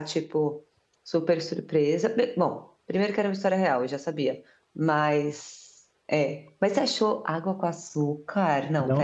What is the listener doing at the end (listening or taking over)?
taking over